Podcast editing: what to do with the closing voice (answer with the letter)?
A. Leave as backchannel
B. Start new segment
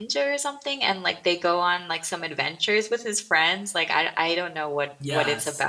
B